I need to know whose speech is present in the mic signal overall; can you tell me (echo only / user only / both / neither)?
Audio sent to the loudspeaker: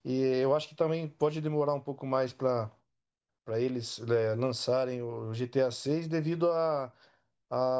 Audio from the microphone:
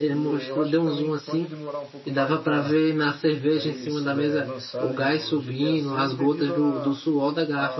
both